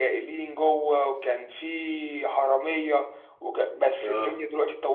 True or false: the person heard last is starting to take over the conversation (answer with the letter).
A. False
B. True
A